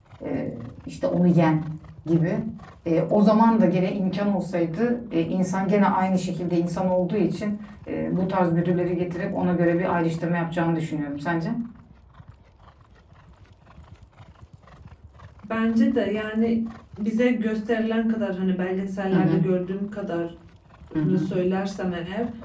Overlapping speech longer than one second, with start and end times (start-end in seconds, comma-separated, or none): none